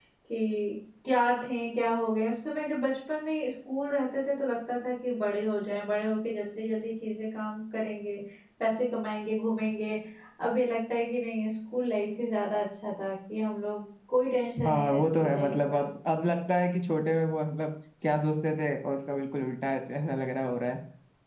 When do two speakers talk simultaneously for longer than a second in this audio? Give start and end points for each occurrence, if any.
14.6-15.8

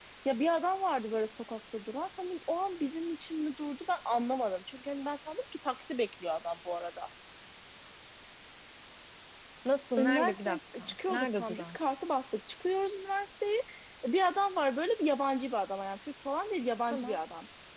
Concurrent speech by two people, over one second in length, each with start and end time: 10.0-11.8

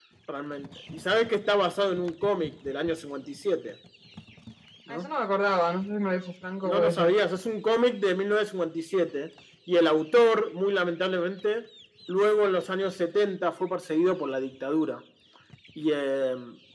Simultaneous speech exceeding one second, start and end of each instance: none

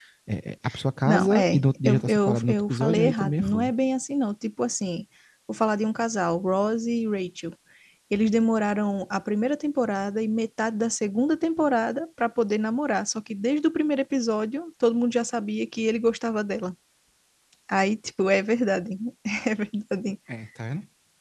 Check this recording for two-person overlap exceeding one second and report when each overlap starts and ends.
1.0-3.7

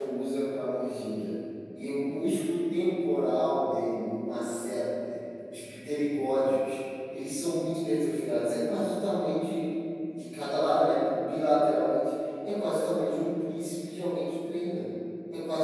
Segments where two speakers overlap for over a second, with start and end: none

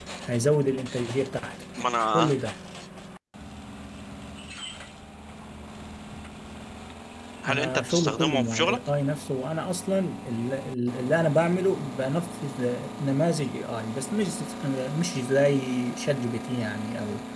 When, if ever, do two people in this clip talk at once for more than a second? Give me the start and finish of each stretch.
7.5-8.8

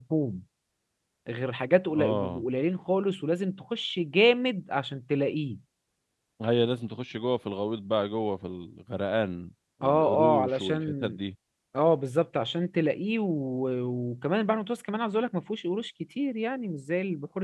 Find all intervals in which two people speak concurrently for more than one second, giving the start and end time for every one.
9.8-11.2

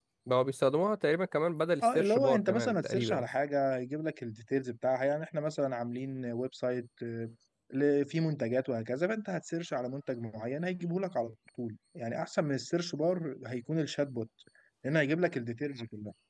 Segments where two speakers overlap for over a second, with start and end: 1.8-3.2

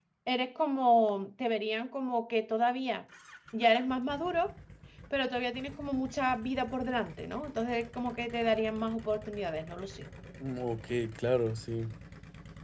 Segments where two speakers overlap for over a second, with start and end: none

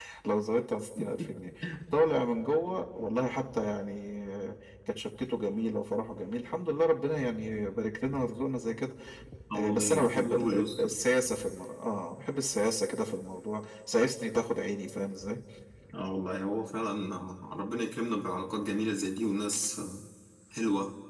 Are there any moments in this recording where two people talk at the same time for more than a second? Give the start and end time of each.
9.5-10.9

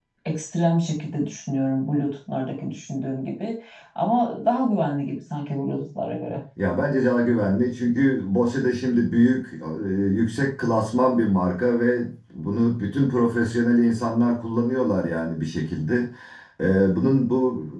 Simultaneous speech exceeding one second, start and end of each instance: none

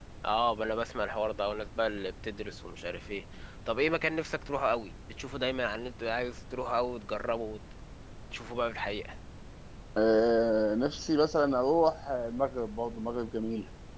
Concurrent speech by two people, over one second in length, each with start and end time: none

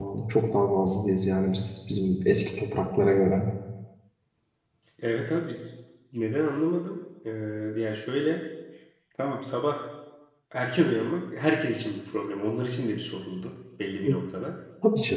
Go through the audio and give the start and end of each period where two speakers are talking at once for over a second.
none

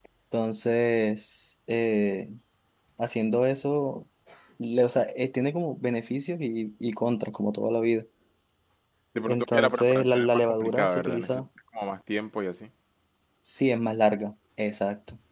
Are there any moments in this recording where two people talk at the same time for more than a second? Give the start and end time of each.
9.3-11.4

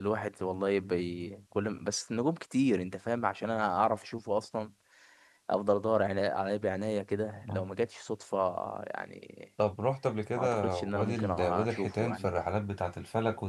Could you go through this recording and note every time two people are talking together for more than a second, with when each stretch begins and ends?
10.4-12.3

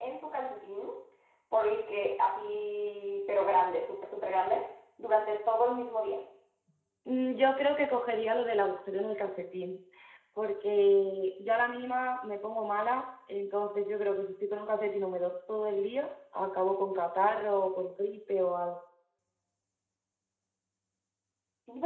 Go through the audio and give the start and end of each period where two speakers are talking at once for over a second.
none

